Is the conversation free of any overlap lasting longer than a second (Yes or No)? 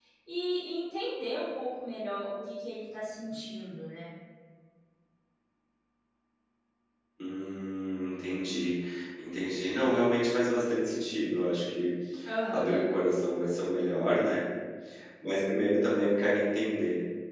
Yes